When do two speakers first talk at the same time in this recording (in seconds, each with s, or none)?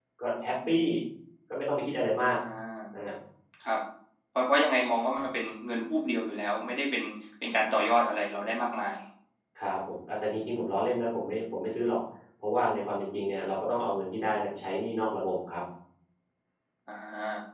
none